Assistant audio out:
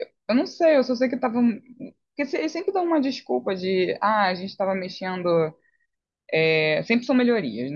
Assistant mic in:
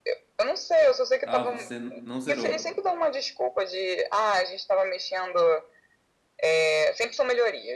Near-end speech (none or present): present